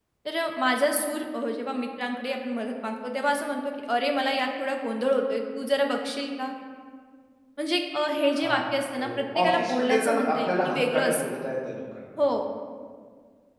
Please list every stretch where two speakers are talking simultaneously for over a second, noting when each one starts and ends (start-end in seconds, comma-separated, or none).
9.0-11.2